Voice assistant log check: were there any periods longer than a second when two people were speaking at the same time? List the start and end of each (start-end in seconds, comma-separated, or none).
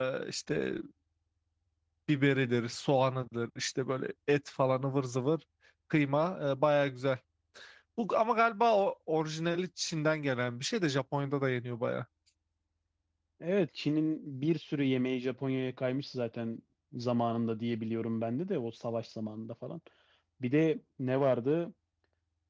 none